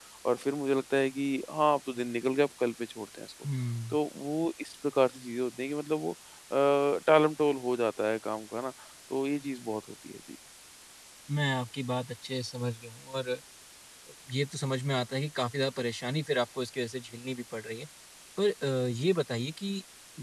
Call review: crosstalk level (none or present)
none